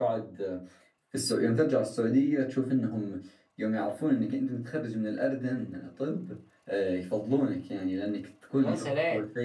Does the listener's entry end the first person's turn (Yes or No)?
No